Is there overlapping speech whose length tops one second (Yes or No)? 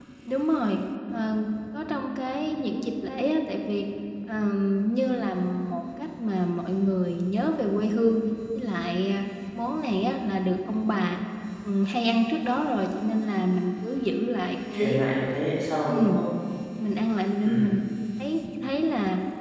No